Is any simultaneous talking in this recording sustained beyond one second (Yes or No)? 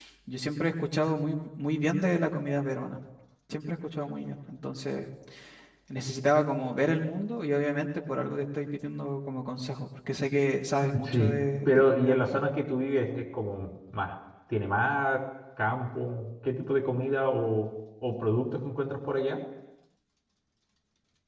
Yes